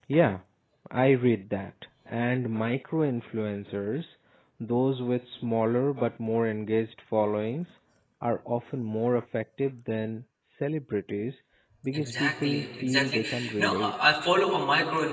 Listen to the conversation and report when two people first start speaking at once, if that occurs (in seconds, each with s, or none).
11.9 s